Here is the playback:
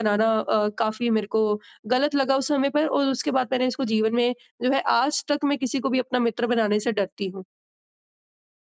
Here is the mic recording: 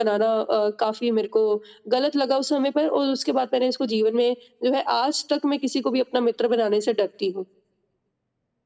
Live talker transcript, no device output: none

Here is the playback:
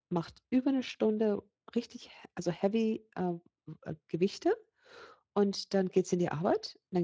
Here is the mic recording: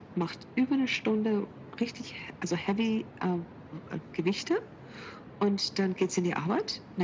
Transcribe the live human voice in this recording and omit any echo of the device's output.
none

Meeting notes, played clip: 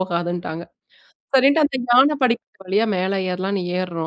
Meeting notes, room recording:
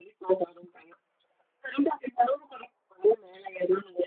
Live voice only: none

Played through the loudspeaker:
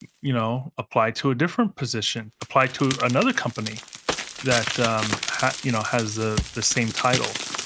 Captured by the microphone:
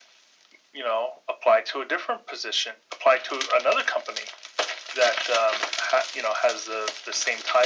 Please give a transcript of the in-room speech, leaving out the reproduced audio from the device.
none

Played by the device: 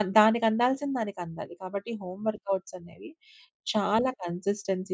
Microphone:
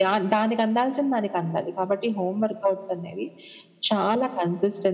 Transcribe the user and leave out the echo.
none

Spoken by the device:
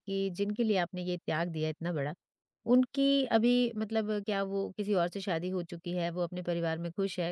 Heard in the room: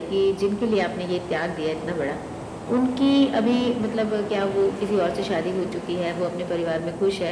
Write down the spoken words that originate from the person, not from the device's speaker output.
none

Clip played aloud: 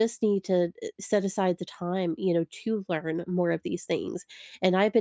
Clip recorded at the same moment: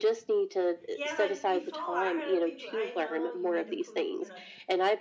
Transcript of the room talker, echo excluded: Yeah, like before I heard people, I know you need to put, you know,

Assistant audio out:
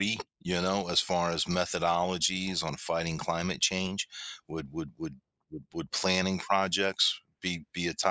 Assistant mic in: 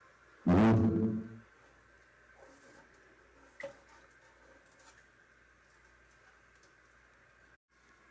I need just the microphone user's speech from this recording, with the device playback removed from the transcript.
Mhm.

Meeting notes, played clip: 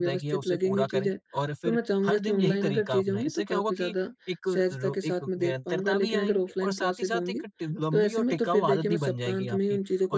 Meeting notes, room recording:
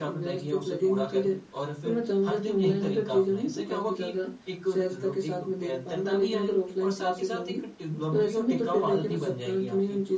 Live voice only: none

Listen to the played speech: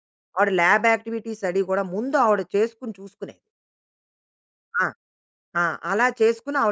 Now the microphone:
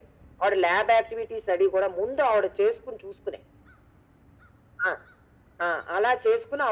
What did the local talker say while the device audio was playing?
none

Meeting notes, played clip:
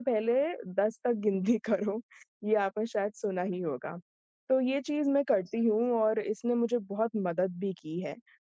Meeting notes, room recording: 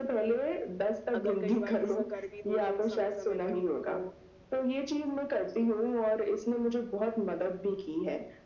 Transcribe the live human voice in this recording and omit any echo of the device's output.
अगर कई बार गुस्सा कर भी दूँ तो समय-समय पर उनको

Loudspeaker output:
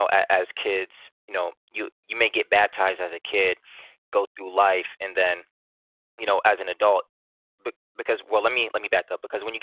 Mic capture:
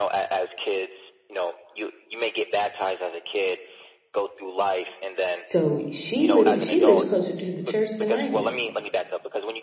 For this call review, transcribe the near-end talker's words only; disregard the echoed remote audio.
So she literally she lives closer to the church than I do.

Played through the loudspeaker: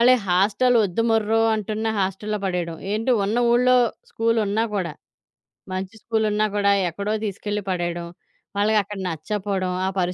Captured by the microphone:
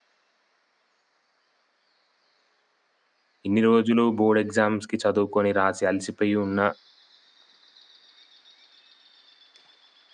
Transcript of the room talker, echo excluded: ఇన్ని రోజులు బోర్డ్ ఎగ్జామ్స్‌కి చదువుకొని రాసి అలసిపోయి ఉన్న

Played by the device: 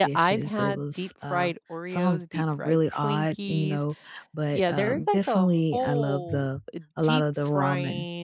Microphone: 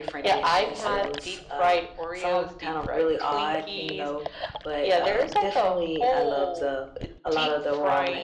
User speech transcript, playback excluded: none

